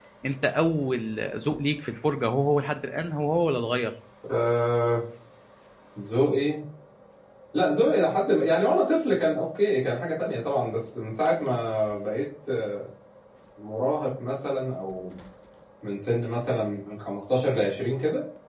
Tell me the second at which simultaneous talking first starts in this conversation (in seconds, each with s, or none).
none